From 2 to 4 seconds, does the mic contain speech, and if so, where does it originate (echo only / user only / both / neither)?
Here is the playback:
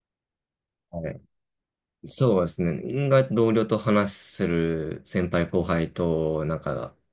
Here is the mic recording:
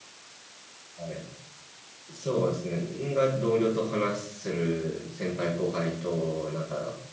echo only